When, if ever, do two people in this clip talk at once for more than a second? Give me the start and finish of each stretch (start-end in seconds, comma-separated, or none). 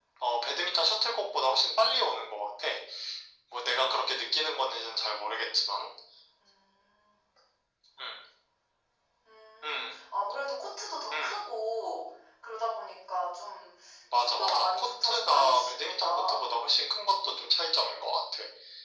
14.2-16.5